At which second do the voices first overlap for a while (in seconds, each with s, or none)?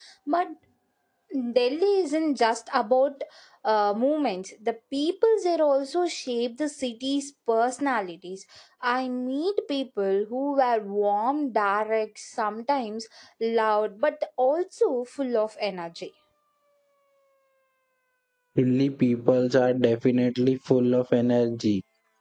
none